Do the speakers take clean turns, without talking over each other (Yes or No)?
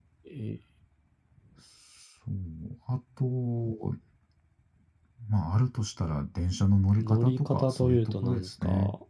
No